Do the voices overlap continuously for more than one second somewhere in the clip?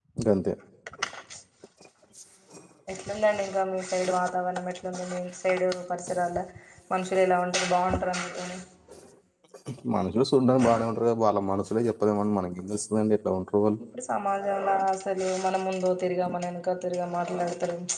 No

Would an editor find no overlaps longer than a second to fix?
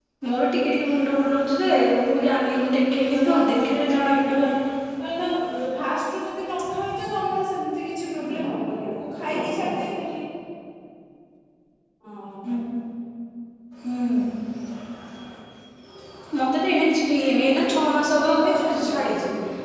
No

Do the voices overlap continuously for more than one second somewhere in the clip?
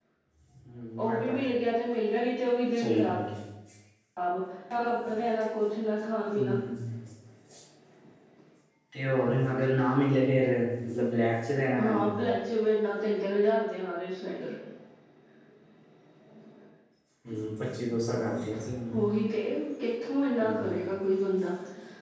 No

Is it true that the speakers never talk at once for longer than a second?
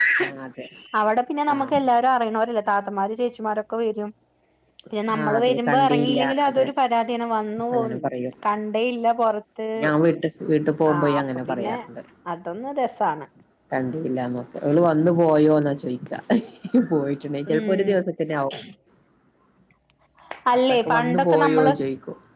No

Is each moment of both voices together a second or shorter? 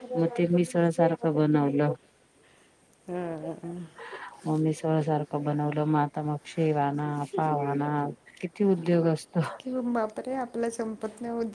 Yes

